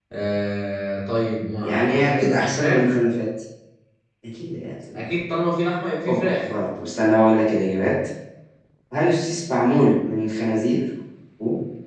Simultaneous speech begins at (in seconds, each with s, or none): 1.6 s